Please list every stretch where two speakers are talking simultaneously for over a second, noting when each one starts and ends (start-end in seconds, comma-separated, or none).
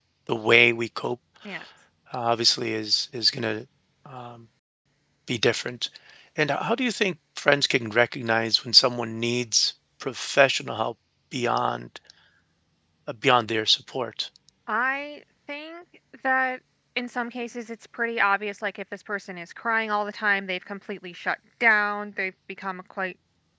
none